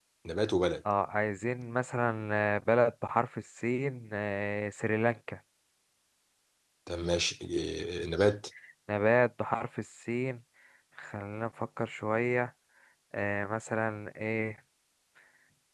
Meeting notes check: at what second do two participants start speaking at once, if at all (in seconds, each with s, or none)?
none